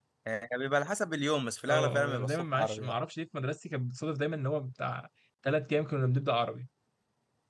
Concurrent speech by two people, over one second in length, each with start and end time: 1.7-3.0

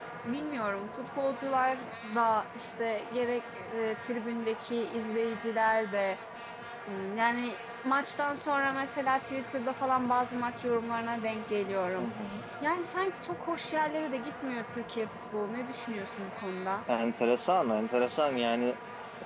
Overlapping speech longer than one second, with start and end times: none

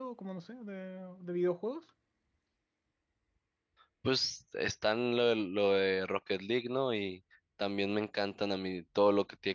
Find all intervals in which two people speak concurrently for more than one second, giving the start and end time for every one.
none

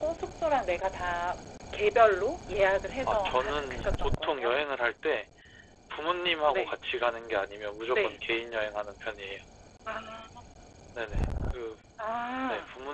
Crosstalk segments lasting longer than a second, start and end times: 3.1-4.5

